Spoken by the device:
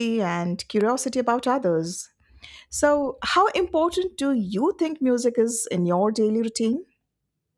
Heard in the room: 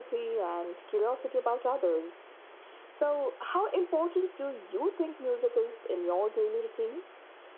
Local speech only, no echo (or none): none